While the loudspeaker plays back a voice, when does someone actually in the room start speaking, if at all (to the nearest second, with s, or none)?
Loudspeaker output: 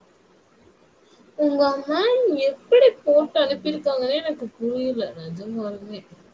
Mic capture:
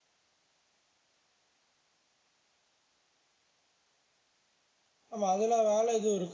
5 s